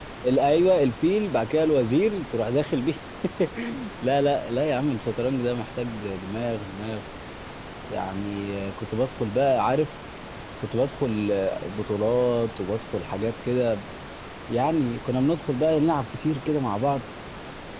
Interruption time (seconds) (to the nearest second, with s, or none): none